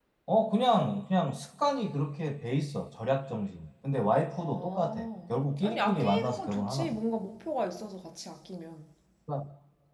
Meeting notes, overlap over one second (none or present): present